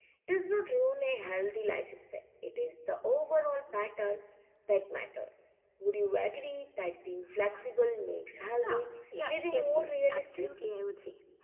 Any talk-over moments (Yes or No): Yes